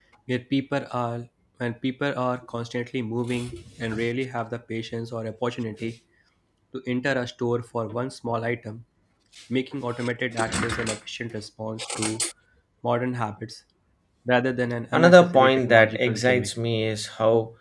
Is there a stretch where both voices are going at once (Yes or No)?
Yes